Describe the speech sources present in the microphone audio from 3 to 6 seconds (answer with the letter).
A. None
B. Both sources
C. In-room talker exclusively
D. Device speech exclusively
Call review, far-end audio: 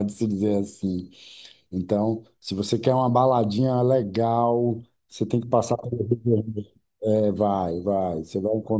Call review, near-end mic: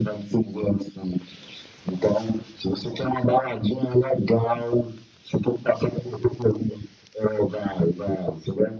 D